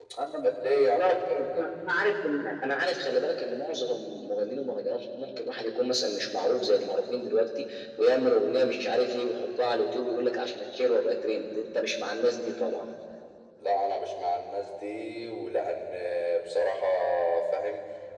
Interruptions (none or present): present